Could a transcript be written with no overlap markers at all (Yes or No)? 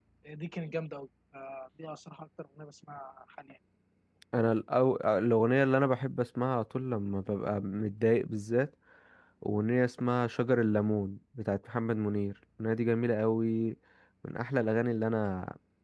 Yes